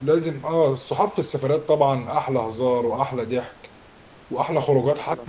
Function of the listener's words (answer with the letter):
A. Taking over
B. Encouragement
B